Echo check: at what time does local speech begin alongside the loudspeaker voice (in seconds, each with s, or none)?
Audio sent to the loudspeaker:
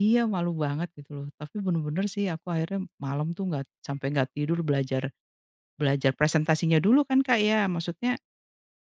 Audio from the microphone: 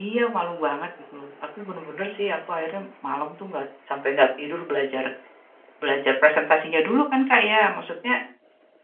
none